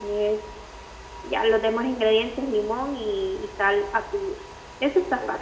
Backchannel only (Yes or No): No